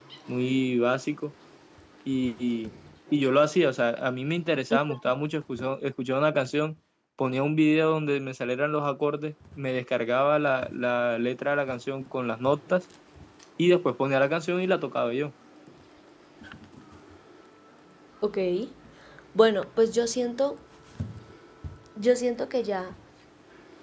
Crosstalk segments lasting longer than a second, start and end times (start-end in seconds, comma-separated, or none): none